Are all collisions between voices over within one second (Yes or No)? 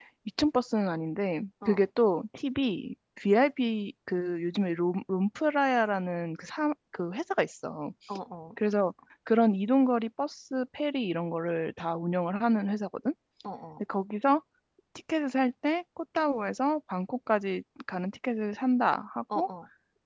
Yes